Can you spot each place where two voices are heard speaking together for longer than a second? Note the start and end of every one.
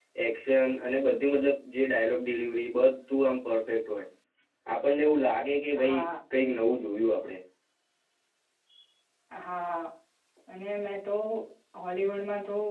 none

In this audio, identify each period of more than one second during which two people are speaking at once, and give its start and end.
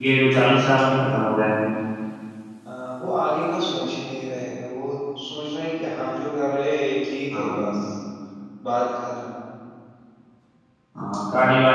none

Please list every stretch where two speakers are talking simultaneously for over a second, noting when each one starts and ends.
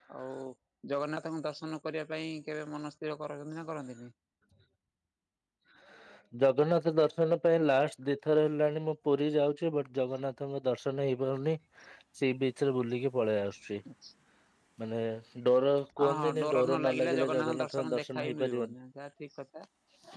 16.0-18.7

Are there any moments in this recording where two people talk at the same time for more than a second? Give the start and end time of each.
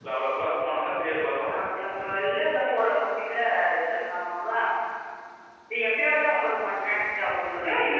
none

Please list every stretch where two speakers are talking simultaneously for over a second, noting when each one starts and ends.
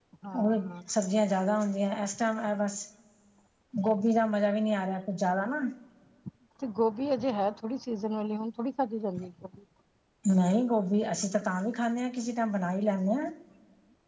none

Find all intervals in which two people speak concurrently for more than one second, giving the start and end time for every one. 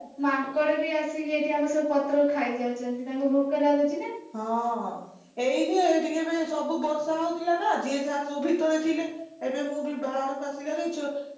none

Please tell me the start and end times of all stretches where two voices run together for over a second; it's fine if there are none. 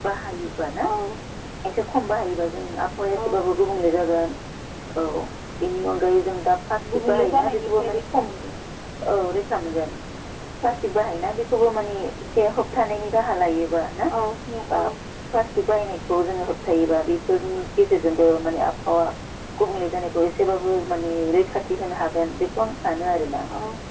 6.9-8.2

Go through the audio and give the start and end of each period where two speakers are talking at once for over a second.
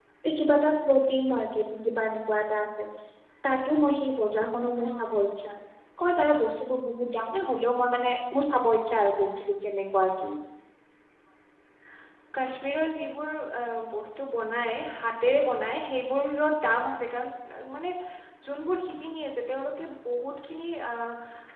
none

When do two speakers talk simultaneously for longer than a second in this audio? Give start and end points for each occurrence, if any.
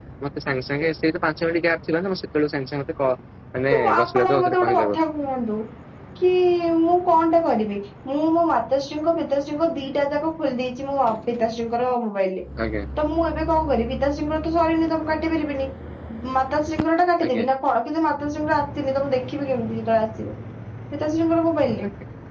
3.7-5.0

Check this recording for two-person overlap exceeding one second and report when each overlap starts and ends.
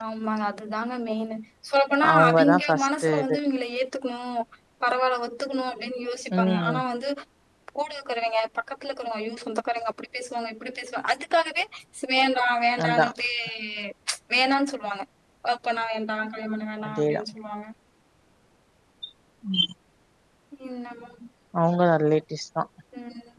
2.1-3.4

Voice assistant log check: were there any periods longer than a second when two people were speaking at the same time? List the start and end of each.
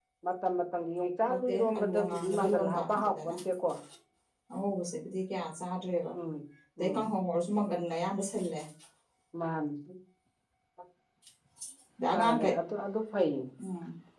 1.3-3.1

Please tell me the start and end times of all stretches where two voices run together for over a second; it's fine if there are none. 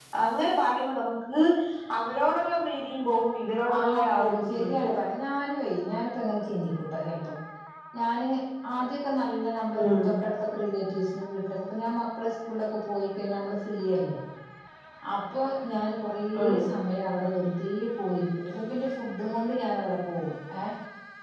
3.8-5.0

